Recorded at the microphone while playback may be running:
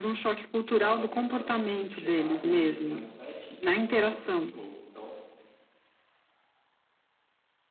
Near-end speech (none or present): present